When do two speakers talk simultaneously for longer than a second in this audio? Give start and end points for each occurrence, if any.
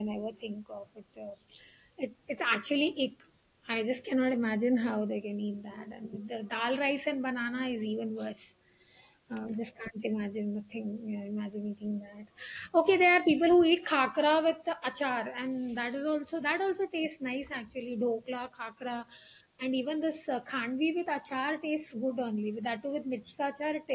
none

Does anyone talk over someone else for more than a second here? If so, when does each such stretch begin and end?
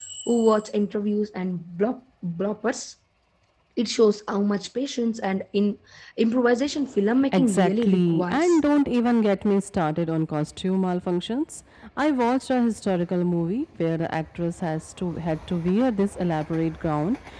7.3-8.6

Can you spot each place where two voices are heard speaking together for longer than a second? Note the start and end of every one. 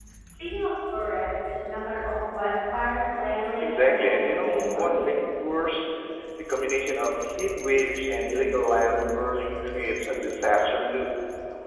3.6-5.2

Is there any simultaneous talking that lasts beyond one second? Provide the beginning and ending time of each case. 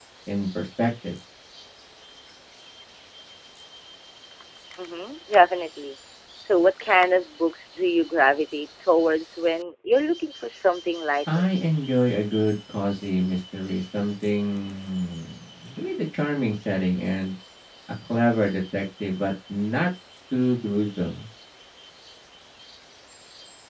none

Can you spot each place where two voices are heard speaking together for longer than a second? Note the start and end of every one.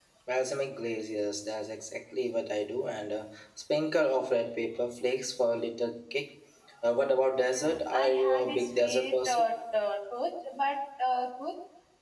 7.4-9.5

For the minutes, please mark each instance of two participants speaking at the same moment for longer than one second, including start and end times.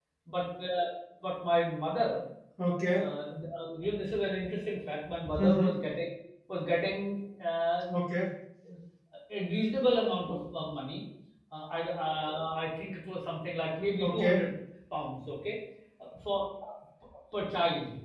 none

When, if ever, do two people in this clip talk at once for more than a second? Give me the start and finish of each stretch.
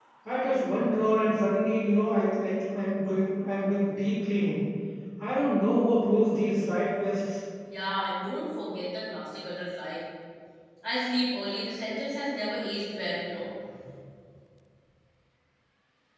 none

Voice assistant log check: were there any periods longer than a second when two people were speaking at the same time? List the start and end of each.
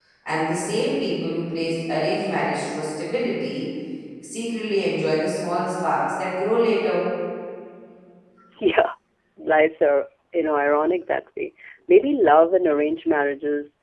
none

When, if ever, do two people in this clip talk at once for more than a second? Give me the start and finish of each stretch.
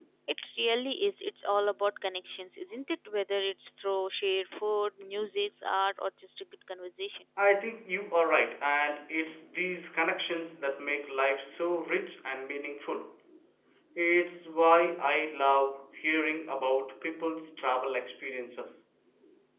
none

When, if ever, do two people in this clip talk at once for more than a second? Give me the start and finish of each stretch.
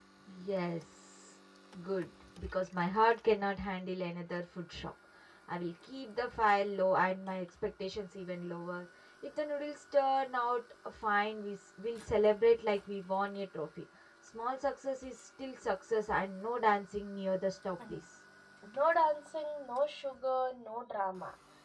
none

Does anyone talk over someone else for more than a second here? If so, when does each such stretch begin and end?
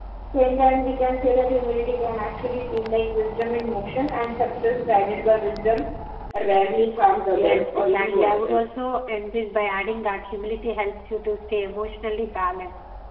7.3-8.6

